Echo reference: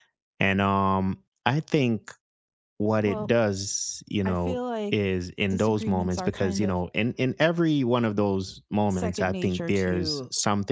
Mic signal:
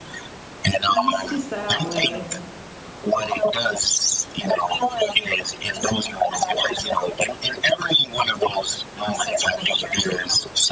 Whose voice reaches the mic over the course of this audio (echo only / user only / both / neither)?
both